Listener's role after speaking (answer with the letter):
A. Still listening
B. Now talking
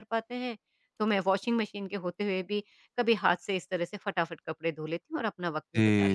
B